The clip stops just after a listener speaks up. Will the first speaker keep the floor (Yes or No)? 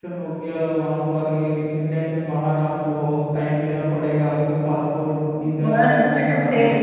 No